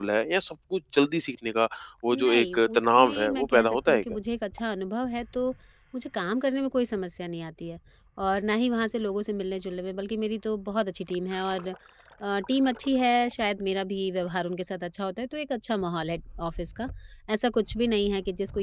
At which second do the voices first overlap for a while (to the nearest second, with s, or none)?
2 s